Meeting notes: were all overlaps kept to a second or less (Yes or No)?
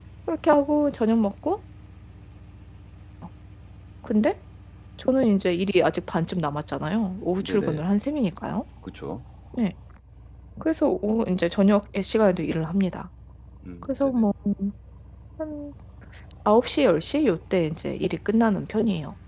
Yes